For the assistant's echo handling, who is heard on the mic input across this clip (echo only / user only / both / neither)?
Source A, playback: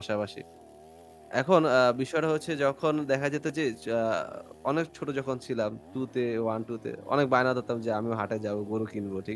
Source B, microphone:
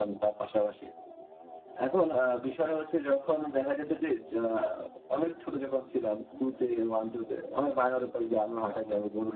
echo only